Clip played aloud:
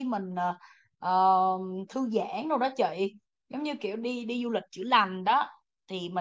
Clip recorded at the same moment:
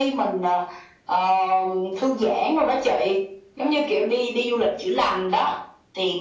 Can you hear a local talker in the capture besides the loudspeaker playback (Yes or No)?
No